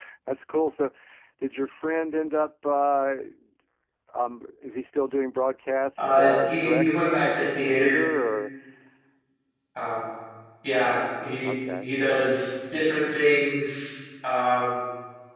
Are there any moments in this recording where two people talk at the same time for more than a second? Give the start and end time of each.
6.0-8.0

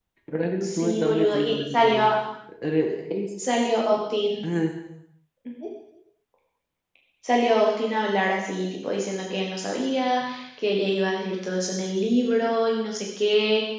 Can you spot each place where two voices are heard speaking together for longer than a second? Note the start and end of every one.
0.6-2.0

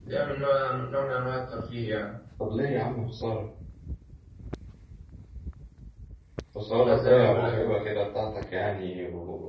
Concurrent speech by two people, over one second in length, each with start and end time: 6.7-8.0

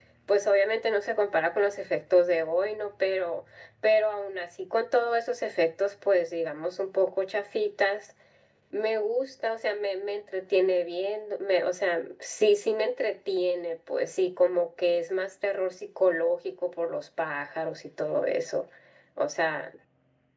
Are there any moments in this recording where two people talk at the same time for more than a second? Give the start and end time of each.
none

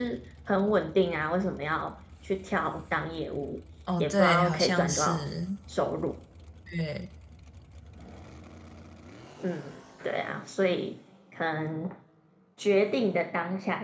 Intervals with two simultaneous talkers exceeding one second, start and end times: 4.0-5.2

